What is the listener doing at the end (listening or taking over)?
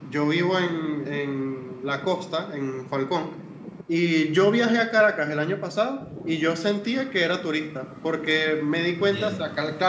listening